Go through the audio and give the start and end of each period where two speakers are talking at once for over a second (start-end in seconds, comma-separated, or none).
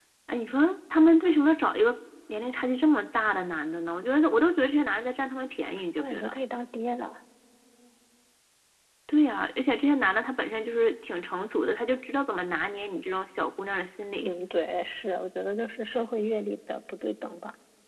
none